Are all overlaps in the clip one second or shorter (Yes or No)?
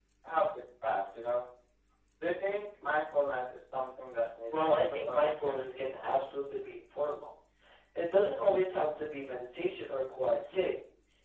No